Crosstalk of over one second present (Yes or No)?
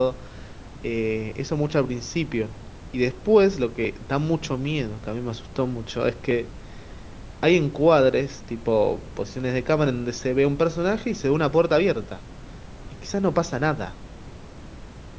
No